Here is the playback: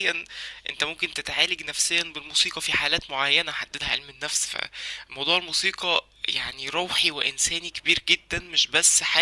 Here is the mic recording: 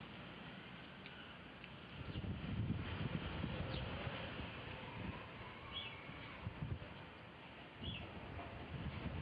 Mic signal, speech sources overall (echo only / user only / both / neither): neither